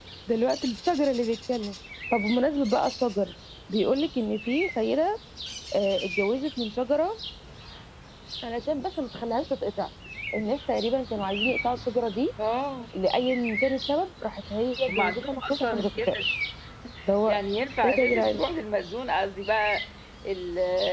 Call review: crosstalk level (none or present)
present